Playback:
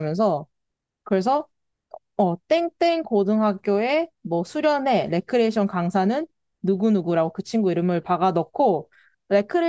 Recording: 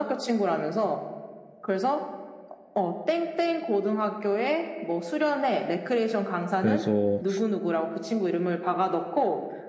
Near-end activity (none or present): present